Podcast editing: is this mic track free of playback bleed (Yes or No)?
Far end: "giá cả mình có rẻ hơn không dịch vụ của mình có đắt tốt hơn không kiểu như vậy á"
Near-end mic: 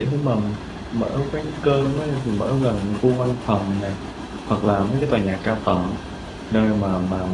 Yes